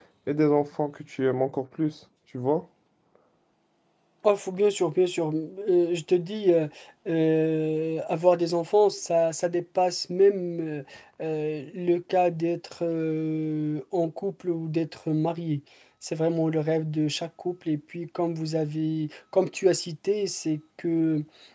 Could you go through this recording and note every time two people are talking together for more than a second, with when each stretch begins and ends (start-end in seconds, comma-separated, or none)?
none